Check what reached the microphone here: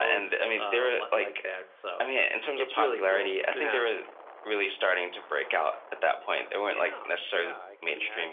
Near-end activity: present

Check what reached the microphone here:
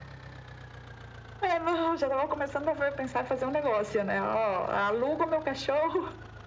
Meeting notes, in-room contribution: none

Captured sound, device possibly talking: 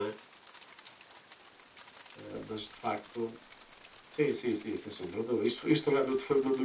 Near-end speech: none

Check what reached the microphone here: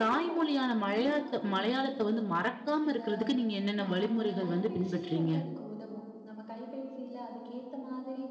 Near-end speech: present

